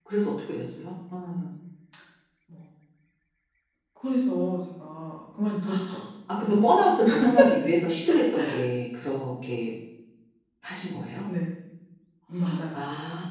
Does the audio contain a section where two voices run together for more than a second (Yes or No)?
No